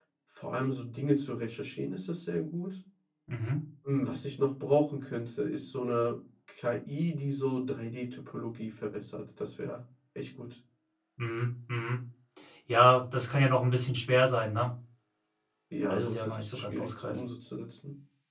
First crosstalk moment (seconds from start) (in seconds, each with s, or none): 15.8 s